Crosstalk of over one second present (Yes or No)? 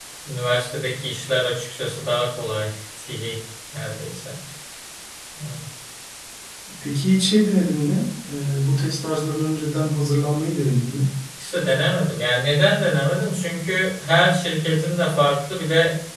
No